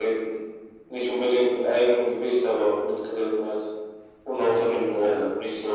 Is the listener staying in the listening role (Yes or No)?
No